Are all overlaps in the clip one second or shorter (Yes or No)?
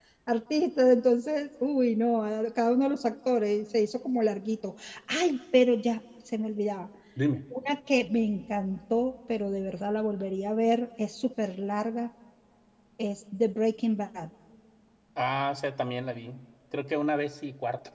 Yes